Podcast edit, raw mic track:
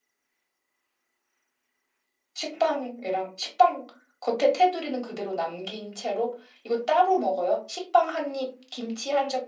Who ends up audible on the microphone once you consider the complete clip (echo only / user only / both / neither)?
user only